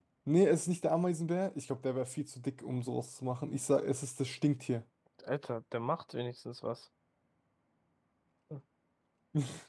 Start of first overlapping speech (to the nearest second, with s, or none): none